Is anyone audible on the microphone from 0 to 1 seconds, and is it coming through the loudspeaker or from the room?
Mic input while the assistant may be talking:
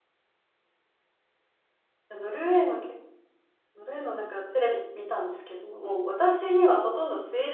neither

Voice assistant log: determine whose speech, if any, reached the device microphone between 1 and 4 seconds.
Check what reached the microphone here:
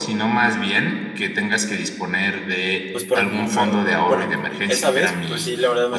both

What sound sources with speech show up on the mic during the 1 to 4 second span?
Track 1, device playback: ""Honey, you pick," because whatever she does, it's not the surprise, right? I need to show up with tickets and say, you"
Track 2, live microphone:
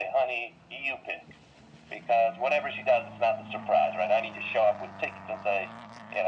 echo only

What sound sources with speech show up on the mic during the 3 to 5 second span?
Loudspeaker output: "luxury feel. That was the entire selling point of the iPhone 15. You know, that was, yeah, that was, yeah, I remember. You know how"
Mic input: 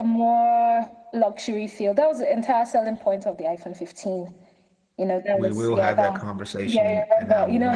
echo only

